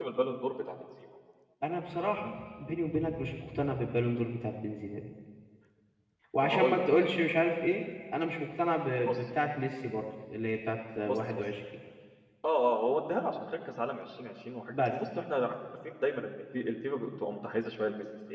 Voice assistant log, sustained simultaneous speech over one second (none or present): none